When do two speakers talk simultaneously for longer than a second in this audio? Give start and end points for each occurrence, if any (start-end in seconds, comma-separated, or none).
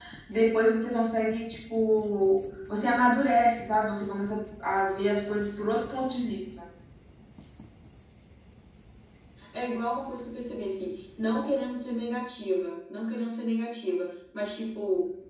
none